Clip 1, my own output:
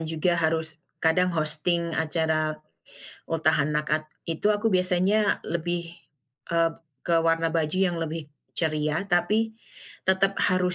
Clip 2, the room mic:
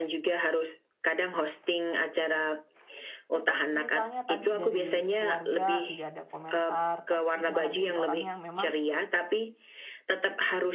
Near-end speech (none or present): present